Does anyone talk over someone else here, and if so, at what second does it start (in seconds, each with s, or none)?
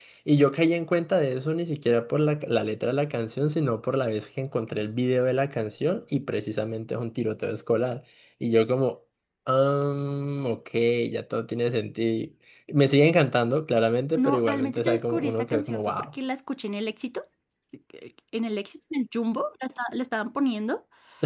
14.2 s